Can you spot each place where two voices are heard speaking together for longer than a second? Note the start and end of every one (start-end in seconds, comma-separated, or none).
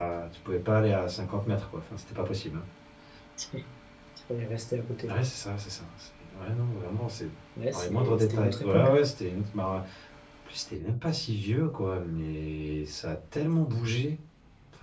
7.7-9.0